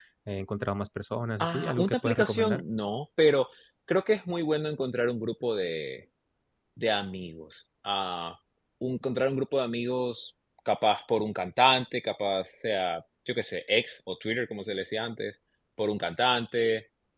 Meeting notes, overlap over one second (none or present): present